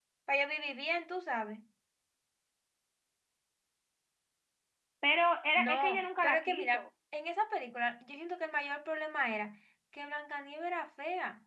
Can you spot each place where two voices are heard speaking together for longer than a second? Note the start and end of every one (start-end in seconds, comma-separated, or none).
5.6-6.8